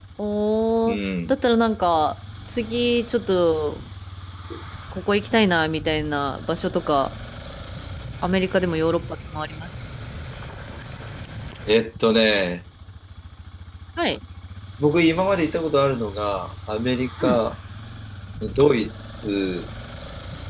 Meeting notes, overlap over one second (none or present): none